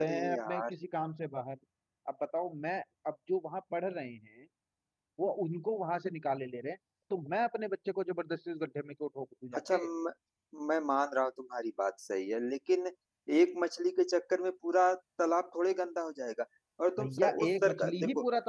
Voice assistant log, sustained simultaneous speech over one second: present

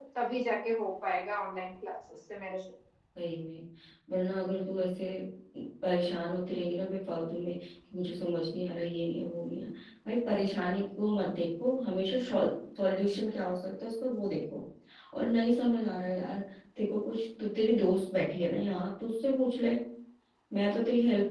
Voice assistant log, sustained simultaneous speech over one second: none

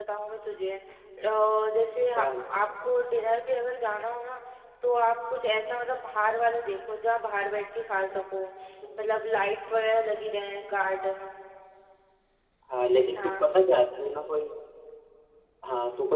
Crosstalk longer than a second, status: none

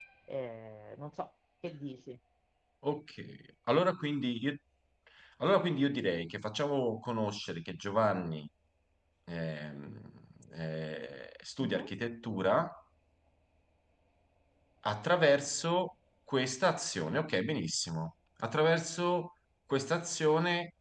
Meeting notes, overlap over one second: none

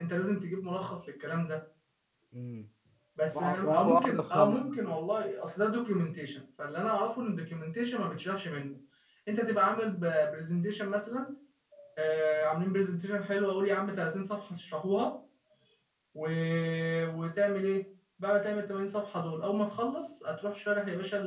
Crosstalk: present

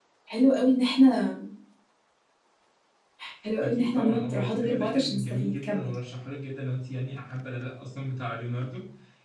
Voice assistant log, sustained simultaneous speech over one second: present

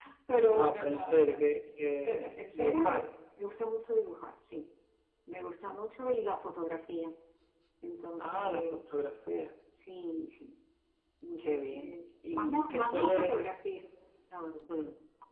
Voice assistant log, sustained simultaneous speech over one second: present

